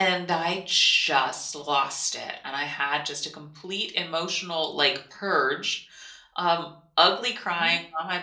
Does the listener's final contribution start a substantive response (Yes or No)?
No